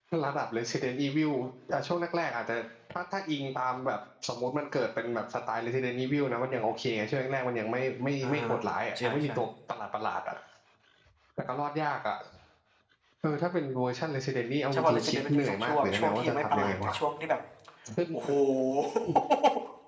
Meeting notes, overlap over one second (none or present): present